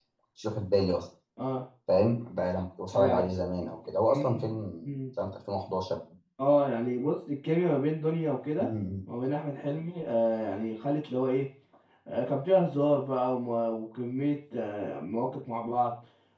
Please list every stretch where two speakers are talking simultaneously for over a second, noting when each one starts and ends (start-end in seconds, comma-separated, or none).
none